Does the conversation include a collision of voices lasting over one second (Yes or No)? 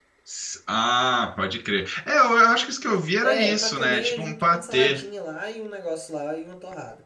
Yes